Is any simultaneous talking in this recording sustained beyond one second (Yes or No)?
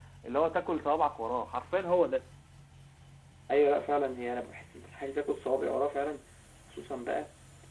No